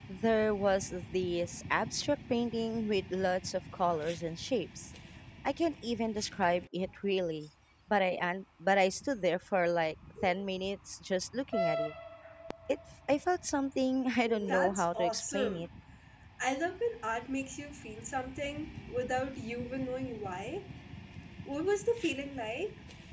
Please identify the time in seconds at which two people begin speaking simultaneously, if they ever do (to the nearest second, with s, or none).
14 s